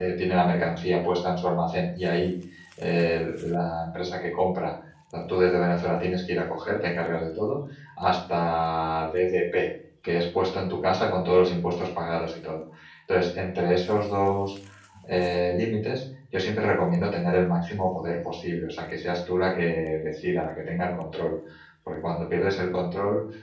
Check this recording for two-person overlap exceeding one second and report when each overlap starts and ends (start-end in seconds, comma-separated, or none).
none